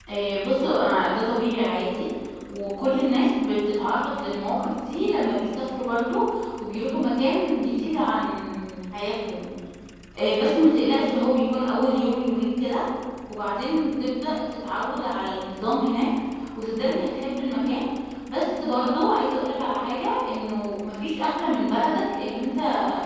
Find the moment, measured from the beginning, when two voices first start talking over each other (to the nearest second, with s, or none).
none